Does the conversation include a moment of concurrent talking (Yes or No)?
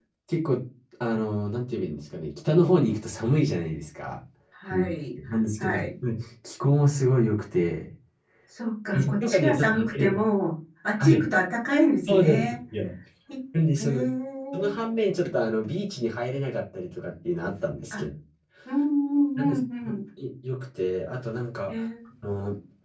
Yes